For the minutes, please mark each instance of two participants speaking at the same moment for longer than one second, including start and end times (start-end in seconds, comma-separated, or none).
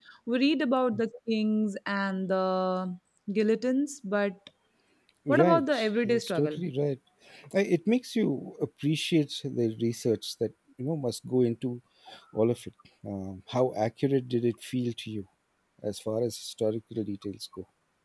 5.3-6.6